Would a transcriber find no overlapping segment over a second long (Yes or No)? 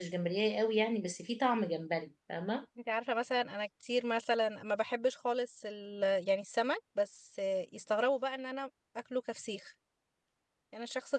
Yes